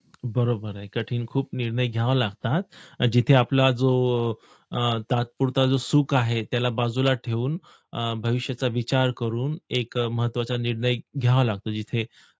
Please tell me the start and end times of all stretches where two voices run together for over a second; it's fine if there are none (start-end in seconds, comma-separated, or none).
none